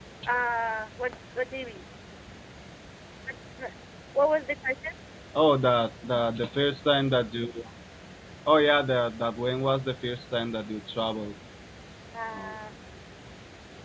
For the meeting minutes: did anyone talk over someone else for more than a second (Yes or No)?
No